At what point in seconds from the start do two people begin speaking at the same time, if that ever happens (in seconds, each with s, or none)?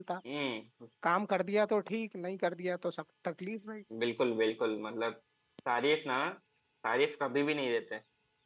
none